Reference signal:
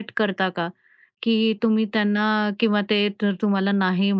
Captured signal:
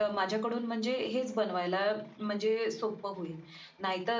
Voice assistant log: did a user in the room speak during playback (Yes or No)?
Yes